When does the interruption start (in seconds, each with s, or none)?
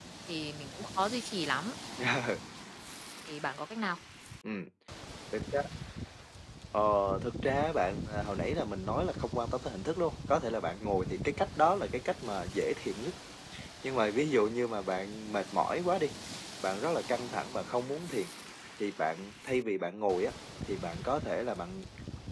none